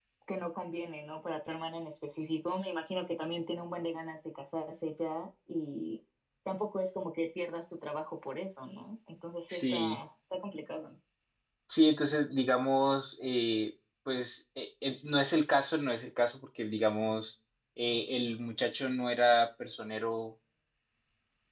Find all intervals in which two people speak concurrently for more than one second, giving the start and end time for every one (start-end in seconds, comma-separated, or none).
none